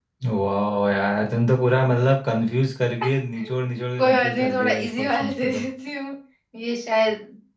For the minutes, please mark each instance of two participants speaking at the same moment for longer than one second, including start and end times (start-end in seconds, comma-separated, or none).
4.0-5.7